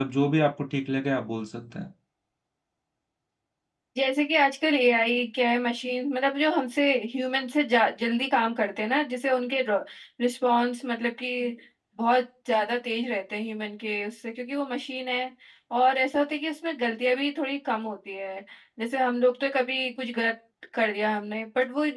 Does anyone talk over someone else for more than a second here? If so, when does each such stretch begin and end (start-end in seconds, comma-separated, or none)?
none